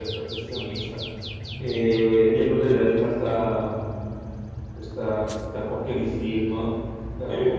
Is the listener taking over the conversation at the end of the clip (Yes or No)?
No